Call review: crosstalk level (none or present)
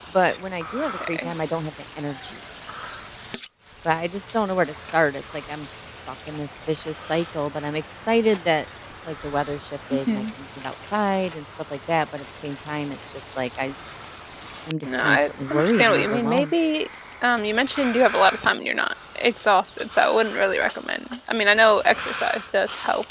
present